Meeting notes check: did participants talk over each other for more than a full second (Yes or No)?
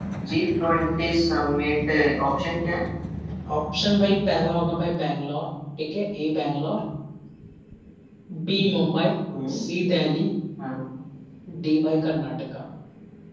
No